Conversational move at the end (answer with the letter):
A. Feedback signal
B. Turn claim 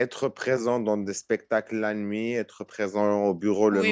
B